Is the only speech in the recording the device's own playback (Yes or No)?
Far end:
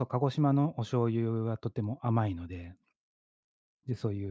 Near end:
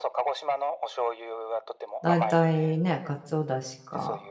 No